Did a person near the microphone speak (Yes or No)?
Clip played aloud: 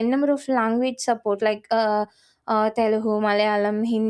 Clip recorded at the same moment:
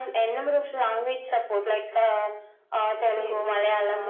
Yes